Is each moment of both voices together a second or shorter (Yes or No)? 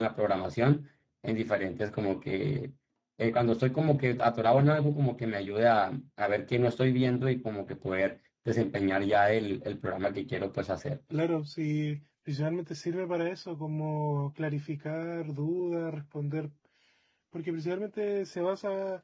Yes